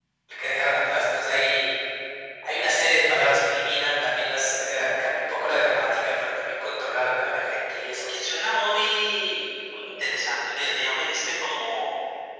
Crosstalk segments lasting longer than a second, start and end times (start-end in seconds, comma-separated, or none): none